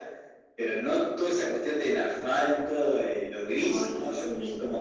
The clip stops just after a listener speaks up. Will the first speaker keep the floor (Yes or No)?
Yes